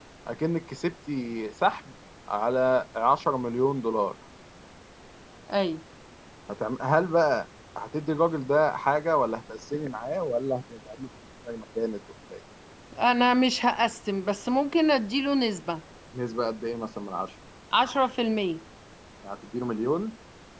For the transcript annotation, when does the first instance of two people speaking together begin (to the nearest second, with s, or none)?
none